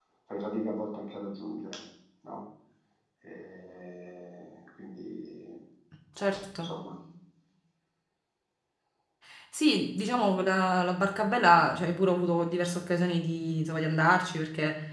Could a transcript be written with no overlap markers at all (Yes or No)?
Yes